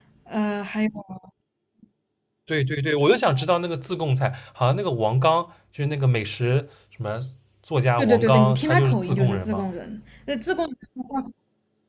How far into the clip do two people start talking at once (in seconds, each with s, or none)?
8.0 s